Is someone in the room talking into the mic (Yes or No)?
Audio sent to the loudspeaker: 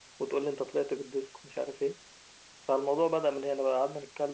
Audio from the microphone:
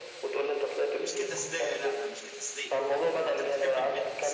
Yes